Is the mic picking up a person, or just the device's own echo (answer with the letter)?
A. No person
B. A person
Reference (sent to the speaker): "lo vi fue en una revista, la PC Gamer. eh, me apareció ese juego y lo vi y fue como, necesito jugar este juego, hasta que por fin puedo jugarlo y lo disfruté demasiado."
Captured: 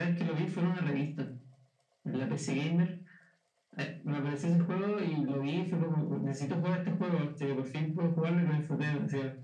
A